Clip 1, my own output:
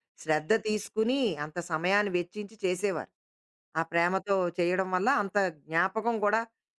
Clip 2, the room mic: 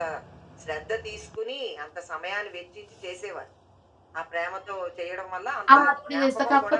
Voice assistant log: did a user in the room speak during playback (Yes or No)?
Yes